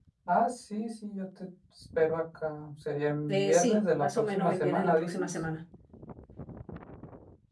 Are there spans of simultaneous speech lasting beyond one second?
Yes, from 3.3 s

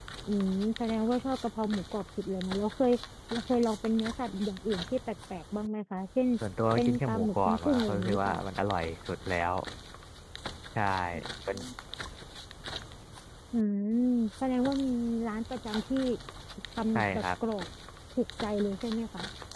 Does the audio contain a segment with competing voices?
Yes, from 6.8 s

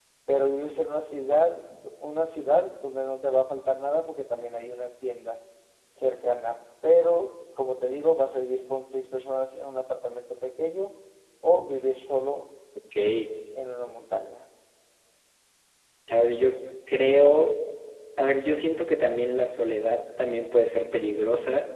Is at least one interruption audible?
No

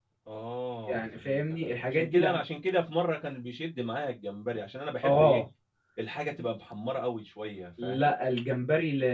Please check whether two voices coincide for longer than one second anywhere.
Yes, from 0.9 s

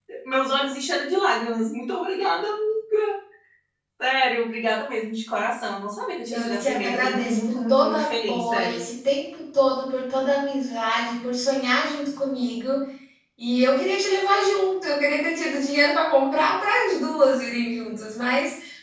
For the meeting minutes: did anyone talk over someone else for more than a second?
Yes, from 6.3 s

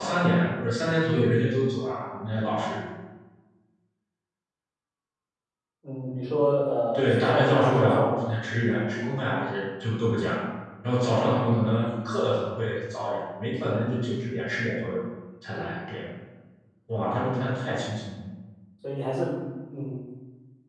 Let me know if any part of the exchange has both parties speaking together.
Yes, from 6.9 s

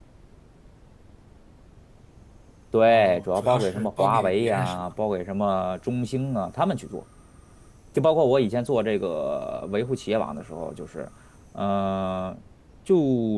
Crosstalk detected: Yes, from 2.9 s

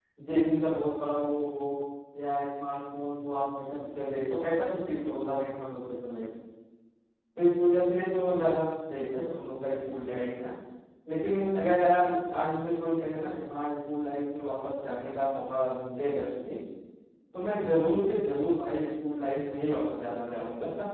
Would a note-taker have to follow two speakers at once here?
No

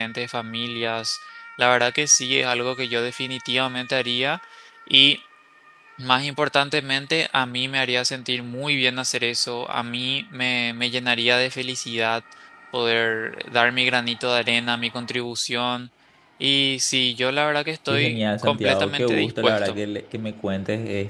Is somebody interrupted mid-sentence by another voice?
Yes, from 17.9 s

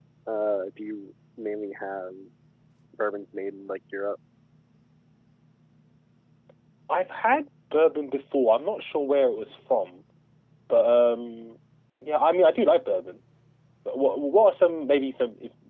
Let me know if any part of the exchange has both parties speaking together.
No

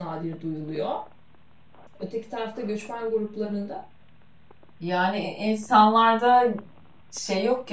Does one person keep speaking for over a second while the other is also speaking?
No

